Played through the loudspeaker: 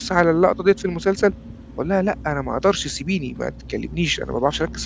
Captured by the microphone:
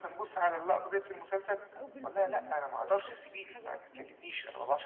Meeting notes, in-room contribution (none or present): present